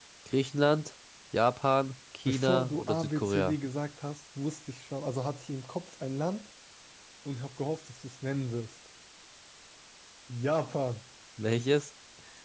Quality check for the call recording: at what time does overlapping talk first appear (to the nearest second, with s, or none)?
2 s